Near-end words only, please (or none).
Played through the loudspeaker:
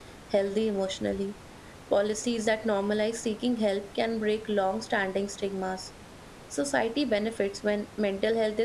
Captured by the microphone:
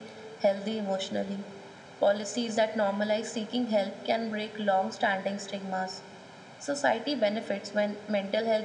none